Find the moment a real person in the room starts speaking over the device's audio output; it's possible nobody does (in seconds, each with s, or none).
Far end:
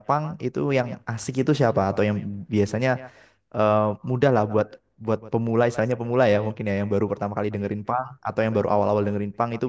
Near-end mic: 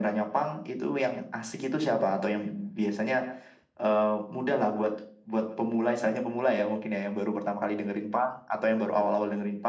none